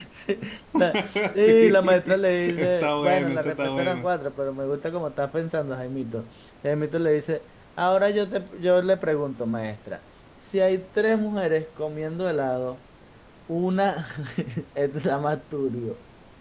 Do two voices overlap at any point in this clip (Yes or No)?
Yes